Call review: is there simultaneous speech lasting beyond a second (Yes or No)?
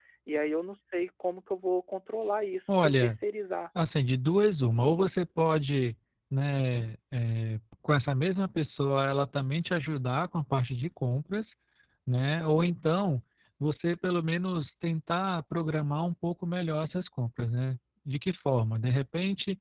No